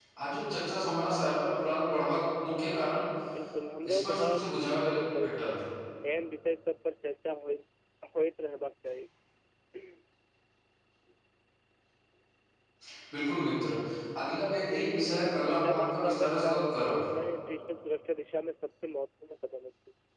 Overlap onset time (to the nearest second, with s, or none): 4 s